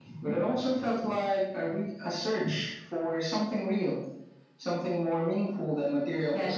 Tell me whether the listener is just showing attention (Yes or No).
No